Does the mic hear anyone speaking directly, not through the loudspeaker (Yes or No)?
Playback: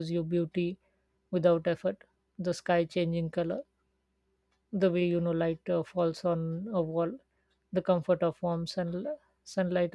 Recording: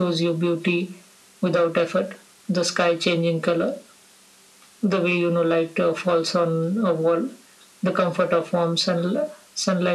No